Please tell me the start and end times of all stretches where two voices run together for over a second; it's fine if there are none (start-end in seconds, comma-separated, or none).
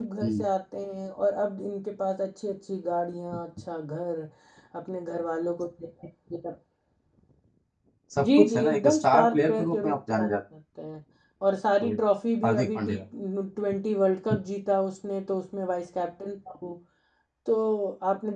8.2-10.3